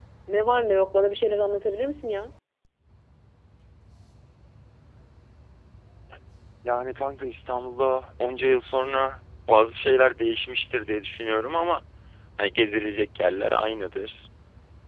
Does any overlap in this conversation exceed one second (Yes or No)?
No